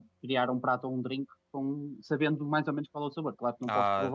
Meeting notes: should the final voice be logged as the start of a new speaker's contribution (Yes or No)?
Yes